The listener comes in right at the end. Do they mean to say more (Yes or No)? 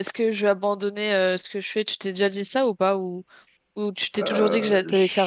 Yes